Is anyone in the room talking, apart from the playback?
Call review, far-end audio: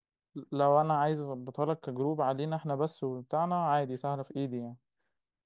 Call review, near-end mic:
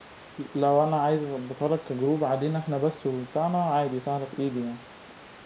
No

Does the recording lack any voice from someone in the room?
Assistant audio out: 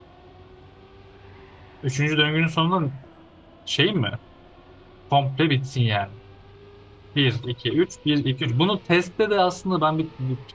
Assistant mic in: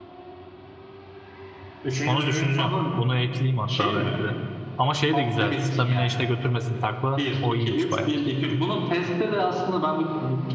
No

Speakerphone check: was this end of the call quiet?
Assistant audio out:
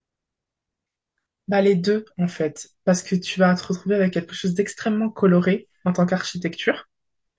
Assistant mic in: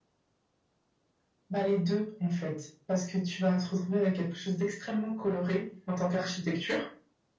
Yes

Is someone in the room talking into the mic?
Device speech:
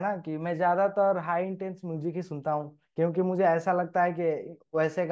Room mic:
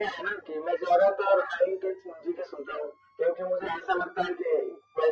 No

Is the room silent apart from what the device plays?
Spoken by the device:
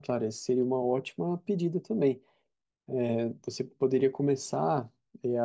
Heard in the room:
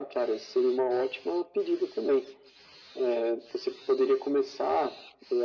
Yes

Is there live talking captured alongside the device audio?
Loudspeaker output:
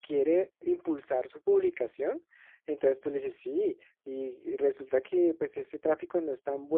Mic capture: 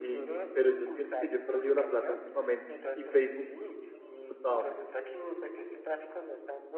Yes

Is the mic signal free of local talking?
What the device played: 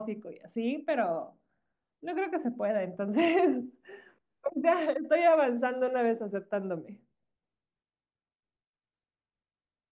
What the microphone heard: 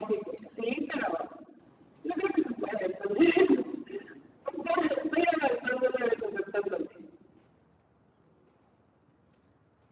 Yes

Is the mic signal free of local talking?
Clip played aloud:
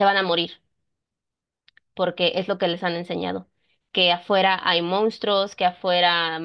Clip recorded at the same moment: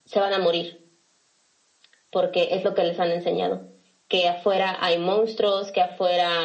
Yes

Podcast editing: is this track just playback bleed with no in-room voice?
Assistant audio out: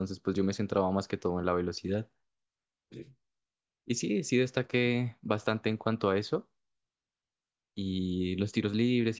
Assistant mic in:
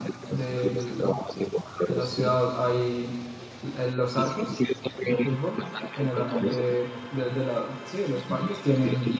No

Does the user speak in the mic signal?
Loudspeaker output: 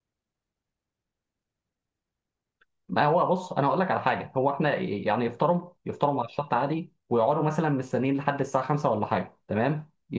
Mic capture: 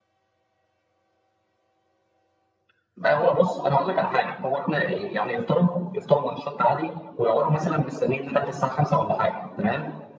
No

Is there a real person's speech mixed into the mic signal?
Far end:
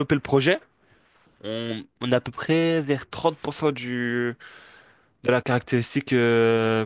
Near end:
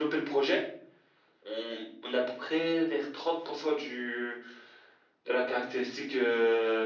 No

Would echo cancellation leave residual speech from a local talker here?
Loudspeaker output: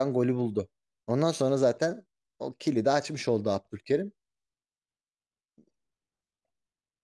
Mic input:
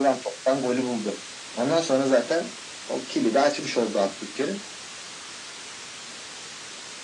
No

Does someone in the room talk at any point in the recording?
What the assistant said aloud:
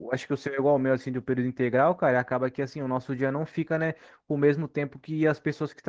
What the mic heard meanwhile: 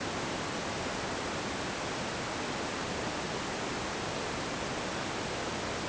No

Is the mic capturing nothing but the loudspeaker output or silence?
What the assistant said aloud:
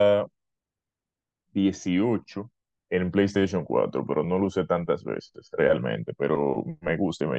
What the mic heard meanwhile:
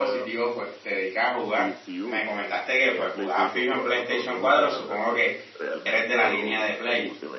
No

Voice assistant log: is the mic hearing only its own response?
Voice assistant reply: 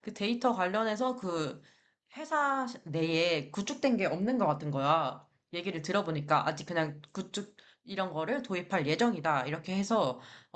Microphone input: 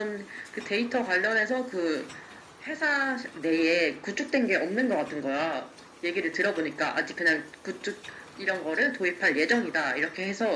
Yes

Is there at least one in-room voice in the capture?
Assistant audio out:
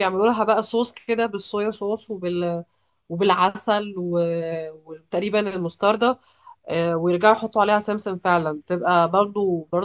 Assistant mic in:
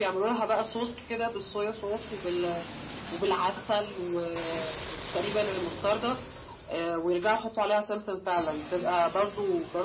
No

